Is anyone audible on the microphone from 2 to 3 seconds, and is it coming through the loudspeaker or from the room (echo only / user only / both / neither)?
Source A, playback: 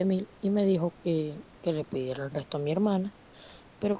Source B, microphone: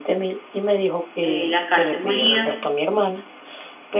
both